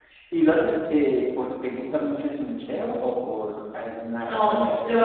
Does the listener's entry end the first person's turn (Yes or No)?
Yes